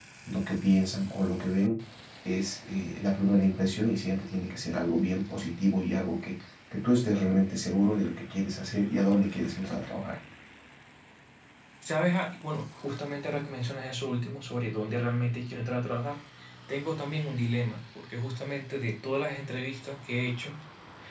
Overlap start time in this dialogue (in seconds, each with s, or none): none